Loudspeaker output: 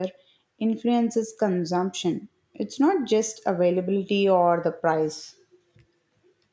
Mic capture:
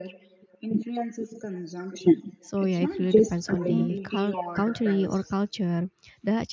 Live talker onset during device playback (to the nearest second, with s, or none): 2 s